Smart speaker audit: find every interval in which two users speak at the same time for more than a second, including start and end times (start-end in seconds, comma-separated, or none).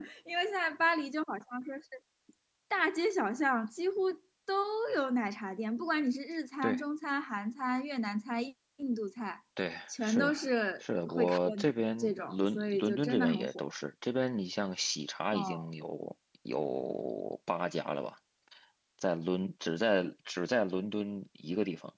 10.8-13.6